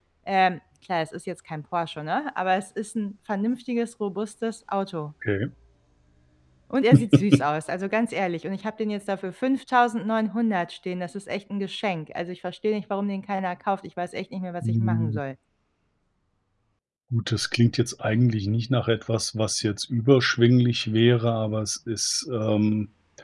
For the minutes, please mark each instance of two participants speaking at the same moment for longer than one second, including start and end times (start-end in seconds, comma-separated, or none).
none